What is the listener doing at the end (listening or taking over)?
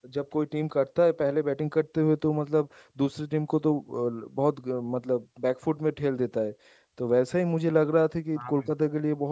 listening